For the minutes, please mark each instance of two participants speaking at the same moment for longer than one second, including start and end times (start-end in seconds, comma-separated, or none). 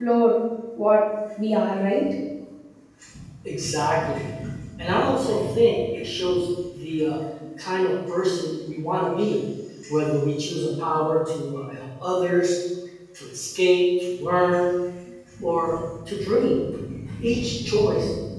none